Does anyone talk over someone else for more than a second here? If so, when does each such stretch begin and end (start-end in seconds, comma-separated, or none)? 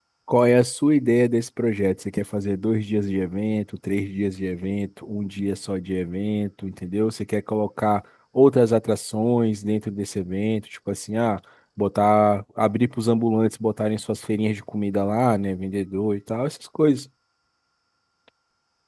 none